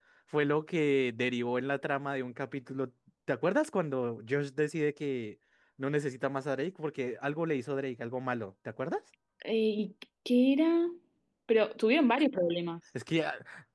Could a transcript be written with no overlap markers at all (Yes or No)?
Yes